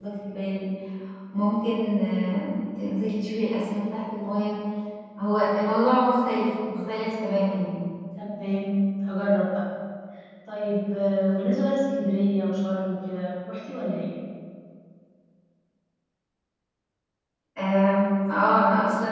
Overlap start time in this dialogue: none

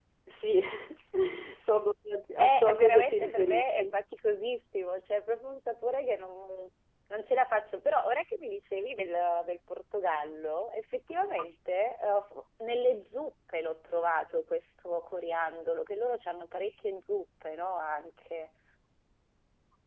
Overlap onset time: 2.4 s

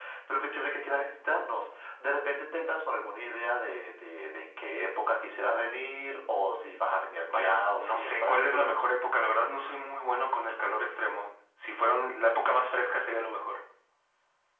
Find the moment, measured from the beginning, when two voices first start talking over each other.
7.3 s

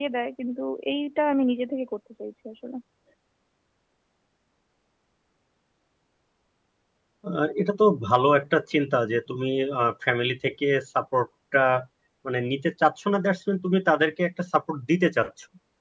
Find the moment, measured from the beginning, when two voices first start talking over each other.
none

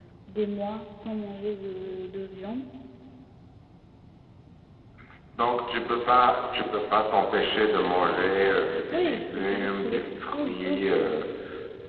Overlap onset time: 8.9 s

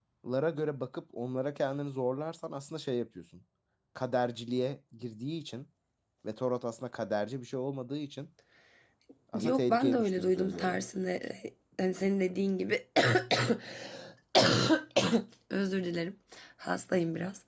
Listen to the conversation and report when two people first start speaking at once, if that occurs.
9.4 s

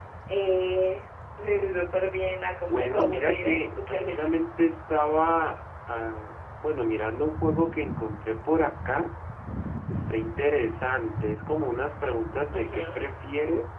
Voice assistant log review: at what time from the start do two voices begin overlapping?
2.7 s

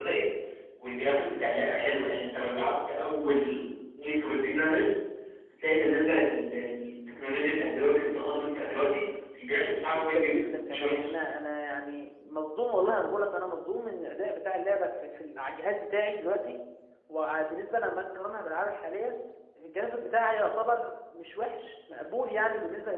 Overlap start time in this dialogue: 9.9 s

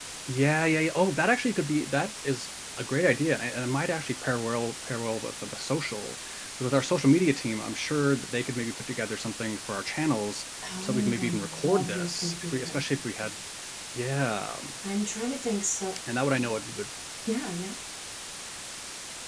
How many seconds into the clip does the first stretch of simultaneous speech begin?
10.6 s

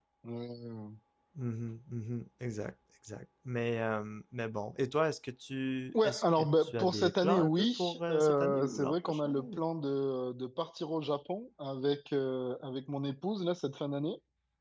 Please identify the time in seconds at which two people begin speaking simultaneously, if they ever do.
5.9 s

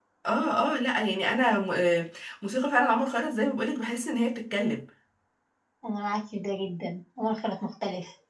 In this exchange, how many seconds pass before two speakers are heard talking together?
none

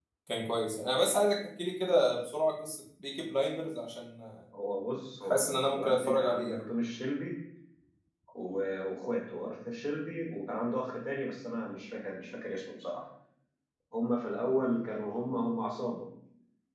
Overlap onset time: 5.3 s

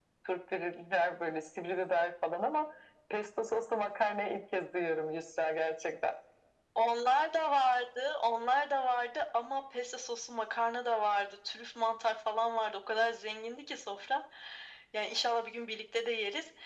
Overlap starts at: none

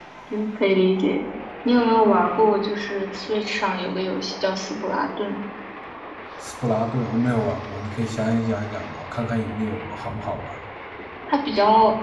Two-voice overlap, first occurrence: none

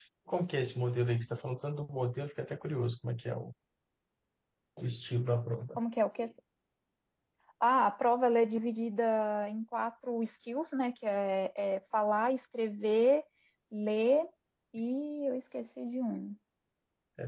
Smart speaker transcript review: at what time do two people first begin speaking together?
none

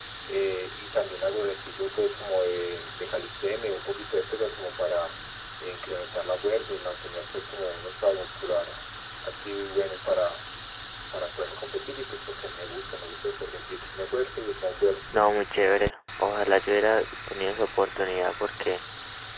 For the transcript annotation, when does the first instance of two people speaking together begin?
none

